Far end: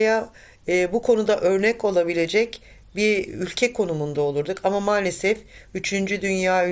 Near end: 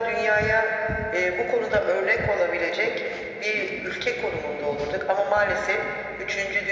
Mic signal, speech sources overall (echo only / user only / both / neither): echo only